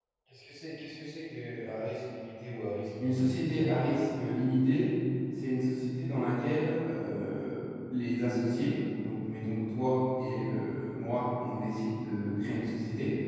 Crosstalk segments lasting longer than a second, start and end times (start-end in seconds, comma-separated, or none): none